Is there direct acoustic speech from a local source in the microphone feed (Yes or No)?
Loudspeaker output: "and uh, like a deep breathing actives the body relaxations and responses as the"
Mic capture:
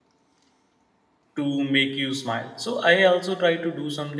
Yes